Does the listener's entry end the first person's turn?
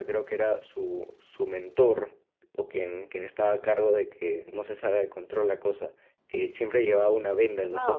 Yes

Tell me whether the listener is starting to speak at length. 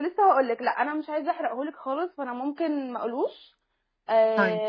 No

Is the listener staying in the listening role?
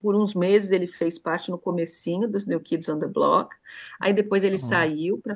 Yes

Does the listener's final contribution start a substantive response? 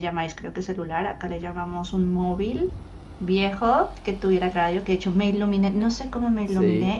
No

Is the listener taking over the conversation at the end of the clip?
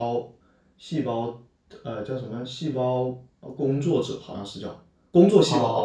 Yes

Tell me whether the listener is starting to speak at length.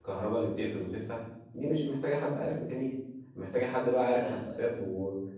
No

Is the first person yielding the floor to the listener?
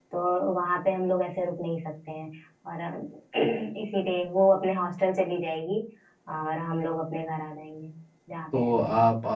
Yes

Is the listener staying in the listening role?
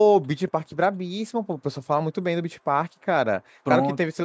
Yes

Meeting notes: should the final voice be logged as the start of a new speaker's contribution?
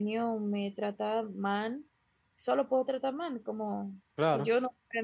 No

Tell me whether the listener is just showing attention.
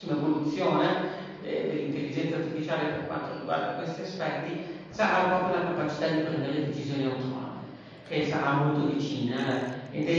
Yes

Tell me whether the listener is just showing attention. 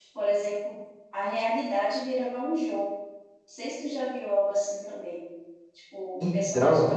Yes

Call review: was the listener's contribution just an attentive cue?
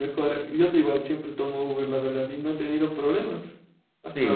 No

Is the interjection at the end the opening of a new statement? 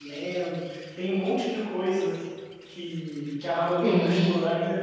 No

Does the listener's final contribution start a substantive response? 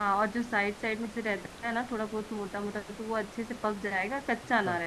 Yes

